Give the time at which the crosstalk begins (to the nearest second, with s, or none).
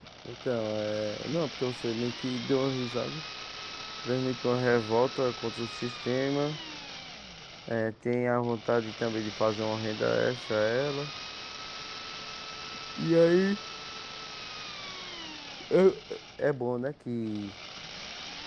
none